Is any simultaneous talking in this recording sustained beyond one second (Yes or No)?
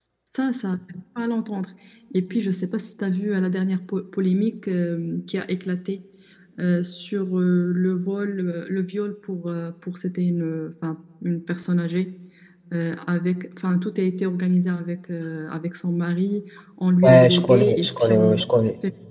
Yes